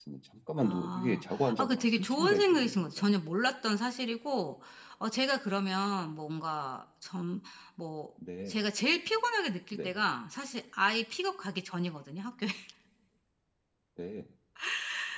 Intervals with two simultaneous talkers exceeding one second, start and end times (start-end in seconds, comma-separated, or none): 0.6-3.0